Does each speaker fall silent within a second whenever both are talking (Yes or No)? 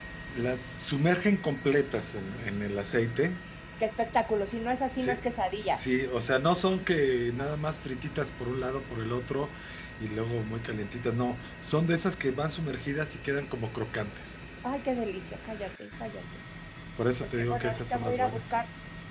No